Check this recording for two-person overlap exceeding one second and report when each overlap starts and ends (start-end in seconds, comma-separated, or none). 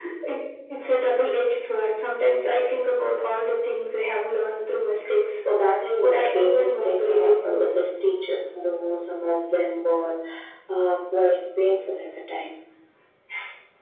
6.0-7.8